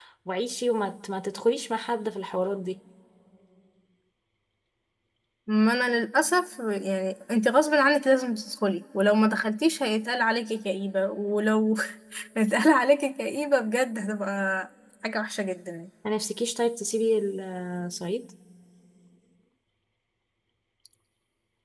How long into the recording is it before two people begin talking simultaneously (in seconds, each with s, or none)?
none